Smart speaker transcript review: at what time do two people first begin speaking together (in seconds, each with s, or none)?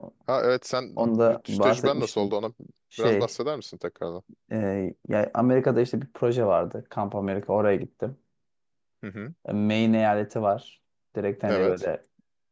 1.0 s